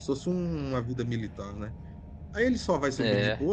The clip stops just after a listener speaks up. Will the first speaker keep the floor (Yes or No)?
Yes